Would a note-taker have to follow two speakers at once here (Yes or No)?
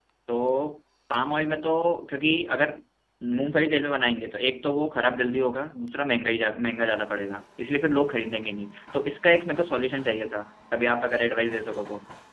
No